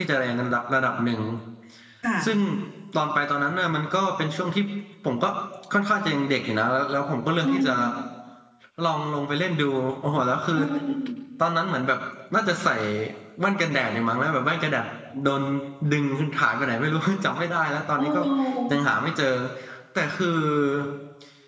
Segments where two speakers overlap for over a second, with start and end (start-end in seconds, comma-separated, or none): none